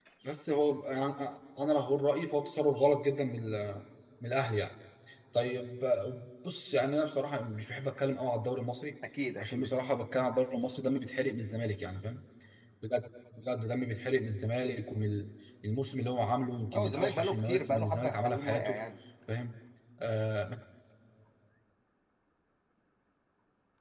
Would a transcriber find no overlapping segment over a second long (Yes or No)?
No